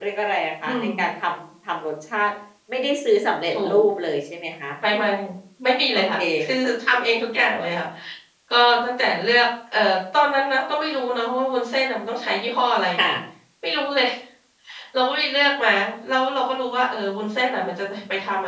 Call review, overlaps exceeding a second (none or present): none